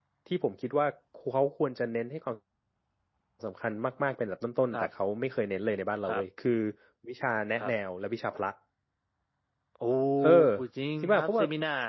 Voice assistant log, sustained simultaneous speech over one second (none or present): none